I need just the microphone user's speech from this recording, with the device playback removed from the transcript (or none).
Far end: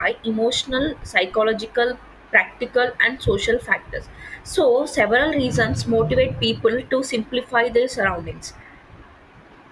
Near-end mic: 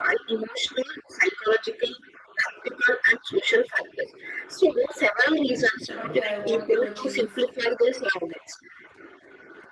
that okay, I want to achieve